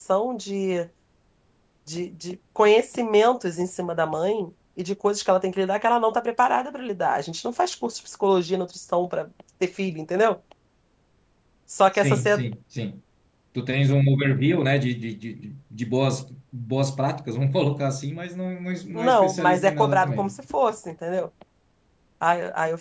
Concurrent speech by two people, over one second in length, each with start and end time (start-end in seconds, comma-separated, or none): 18.9-20.3